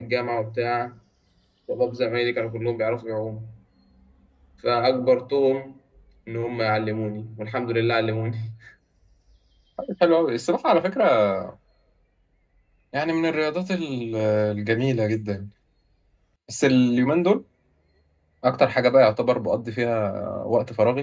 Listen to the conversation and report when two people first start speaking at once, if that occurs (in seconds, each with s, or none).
none